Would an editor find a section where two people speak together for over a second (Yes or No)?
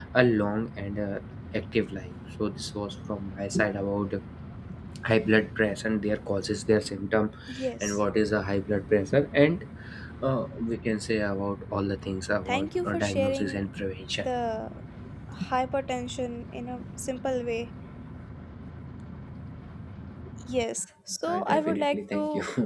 Yes